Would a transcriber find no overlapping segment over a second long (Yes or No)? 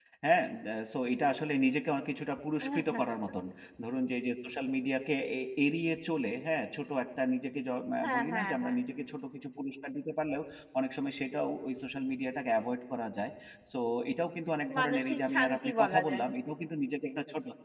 No